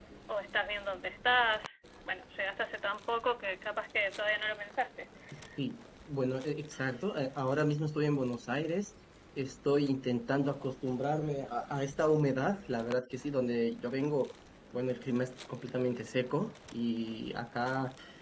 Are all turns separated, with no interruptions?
Yes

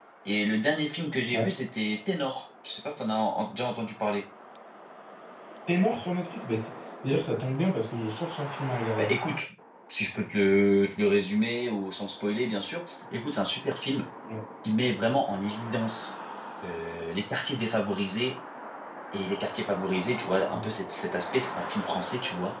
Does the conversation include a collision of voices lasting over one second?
No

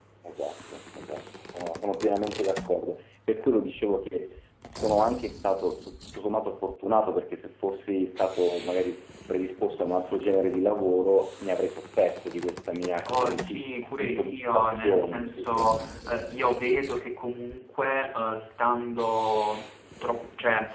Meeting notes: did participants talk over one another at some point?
Yes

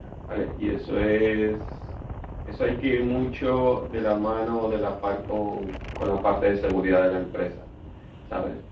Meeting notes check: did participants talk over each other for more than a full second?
No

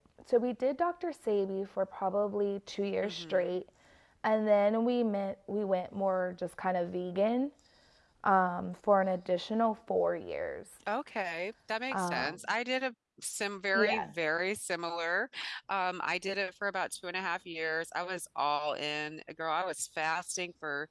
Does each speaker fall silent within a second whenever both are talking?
Yes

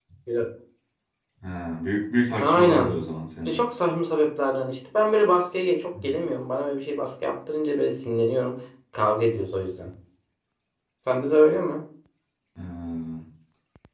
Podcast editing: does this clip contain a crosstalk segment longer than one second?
No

